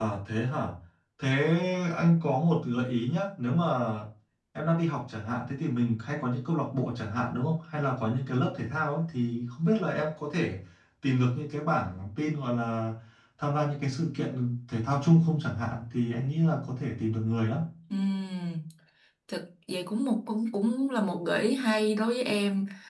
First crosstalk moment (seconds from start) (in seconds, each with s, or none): none